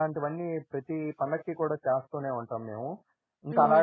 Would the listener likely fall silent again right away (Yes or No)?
No